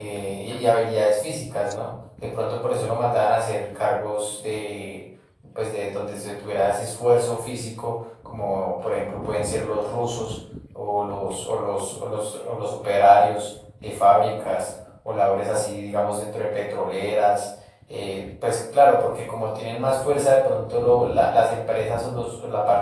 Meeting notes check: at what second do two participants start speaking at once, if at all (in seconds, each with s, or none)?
none